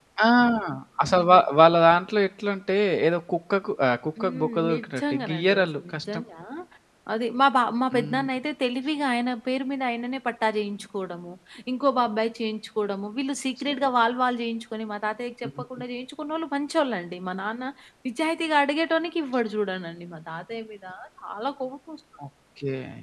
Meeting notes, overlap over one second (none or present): present